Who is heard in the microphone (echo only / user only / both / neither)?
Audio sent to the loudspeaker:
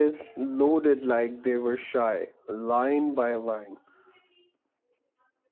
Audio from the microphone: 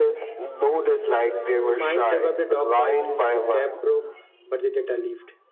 both